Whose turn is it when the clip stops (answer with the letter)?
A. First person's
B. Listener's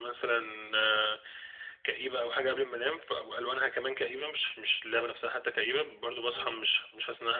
A